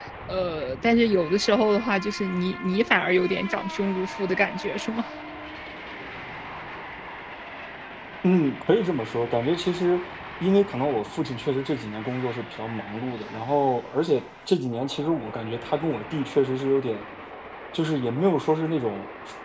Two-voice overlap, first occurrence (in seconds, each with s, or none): none